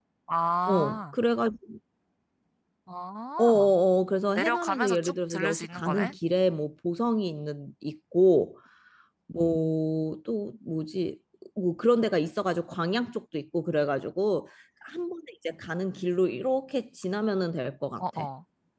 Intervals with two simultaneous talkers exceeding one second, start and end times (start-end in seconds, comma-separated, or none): 4.3-6.1